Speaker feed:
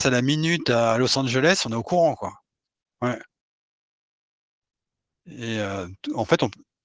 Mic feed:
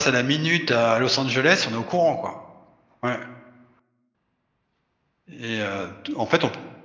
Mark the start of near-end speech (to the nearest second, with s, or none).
none